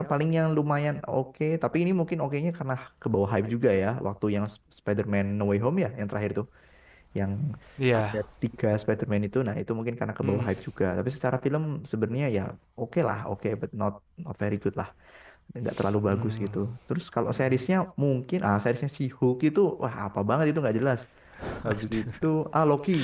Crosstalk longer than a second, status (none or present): none